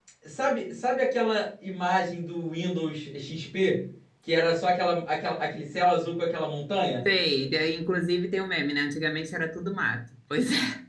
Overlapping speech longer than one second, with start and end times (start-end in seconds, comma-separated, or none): none